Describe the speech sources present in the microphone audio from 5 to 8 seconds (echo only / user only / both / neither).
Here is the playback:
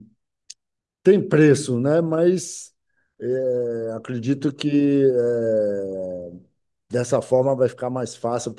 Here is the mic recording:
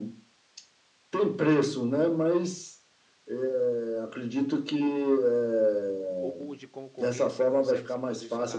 both